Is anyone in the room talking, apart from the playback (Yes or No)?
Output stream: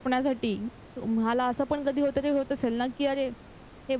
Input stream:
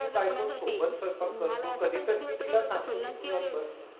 Yes